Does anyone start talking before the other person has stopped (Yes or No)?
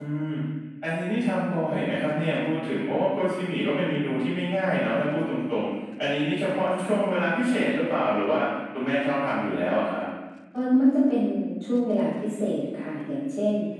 No